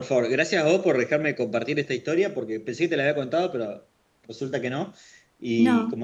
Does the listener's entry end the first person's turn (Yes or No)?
No